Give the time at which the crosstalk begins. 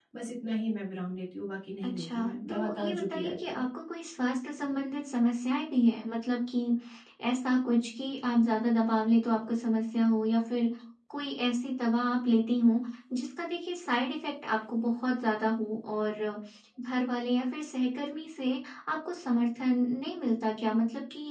1.8 s

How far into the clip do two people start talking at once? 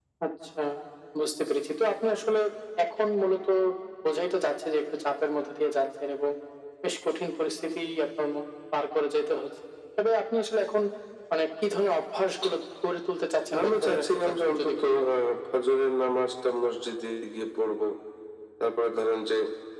13.5 s

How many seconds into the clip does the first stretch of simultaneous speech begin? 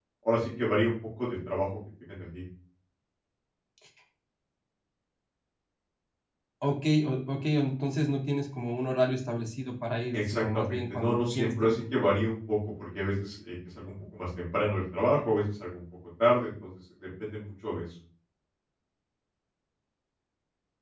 10.1 s

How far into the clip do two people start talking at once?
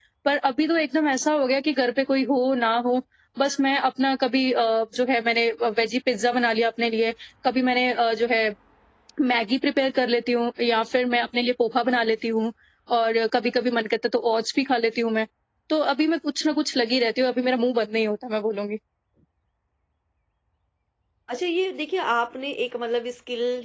none

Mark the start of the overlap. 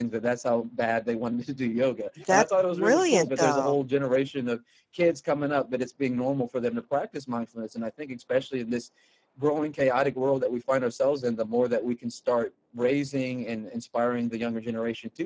2.2 s

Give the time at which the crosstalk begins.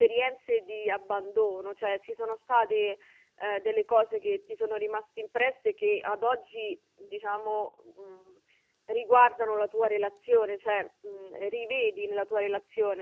none

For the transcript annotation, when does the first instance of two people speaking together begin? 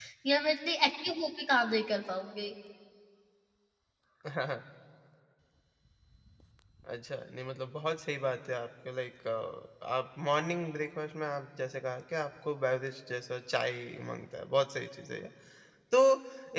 none

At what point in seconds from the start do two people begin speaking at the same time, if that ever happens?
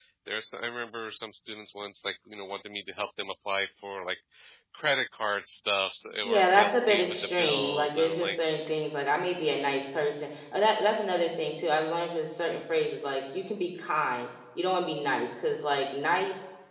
6.2 s

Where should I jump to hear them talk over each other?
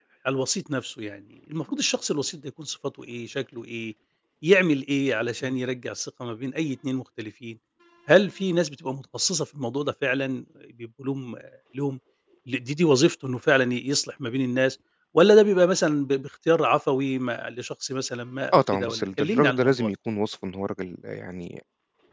18.5 s

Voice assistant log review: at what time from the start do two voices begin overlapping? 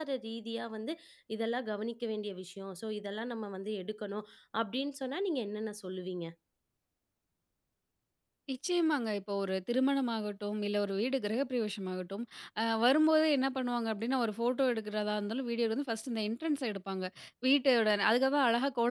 none

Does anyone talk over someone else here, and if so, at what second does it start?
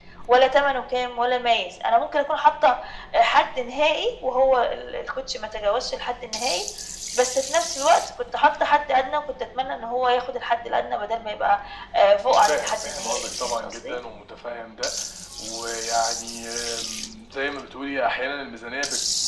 12.5 s

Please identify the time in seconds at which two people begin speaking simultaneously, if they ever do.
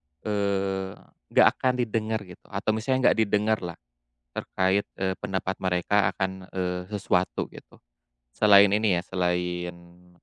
none

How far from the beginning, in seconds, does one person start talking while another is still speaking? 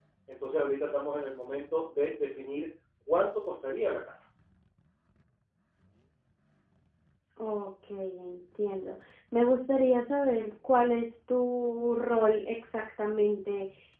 none

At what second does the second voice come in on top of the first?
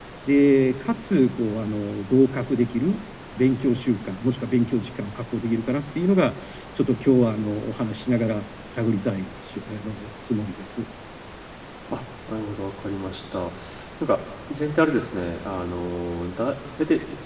none

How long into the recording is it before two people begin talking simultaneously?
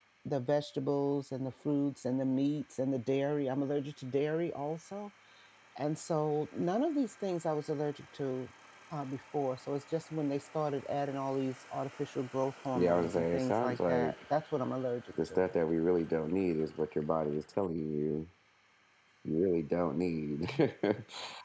12.8 s

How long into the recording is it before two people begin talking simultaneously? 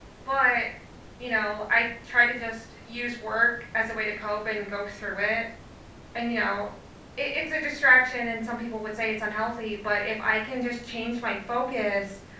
none

